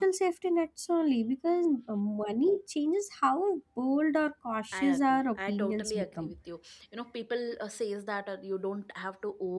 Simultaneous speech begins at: 4.7 s

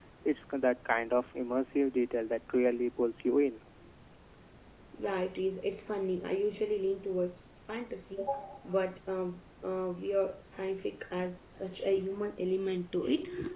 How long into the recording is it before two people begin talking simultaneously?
none

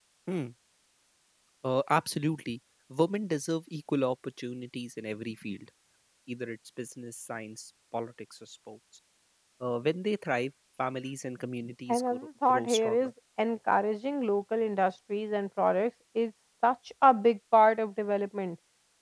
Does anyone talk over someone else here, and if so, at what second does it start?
11.9 s

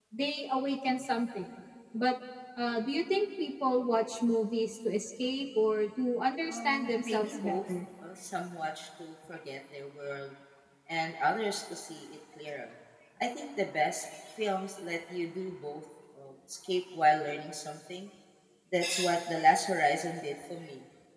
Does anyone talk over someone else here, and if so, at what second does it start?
6.5 s

